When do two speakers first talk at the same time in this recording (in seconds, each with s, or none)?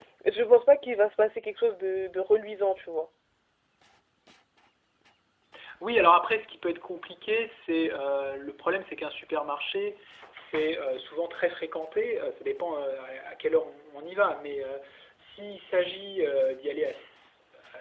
none